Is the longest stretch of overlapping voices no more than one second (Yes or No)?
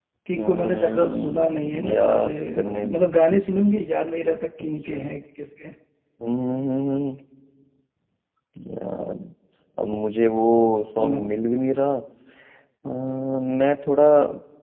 No